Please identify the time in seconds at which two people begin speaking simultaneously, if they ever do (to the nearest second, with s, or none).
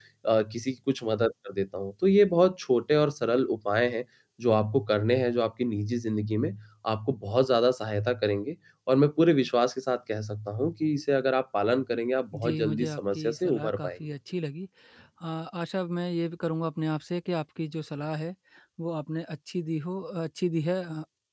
12 s